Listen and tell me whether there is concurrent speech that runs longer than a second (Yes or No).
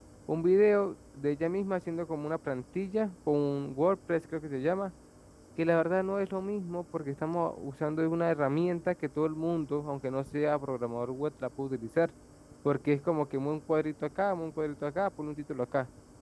No